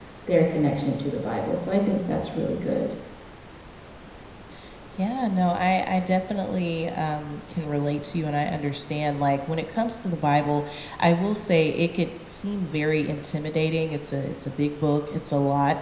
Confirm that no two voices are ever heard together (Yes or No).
Yes